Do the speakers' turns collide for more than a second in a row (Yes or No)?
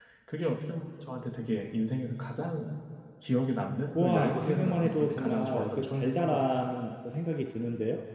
Yes